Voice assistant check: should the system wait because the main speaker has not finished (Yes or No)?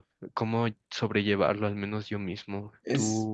Yes